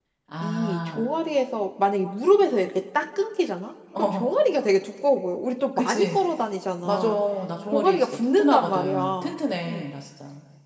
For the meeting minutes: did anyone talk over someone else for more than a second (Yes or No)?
Yes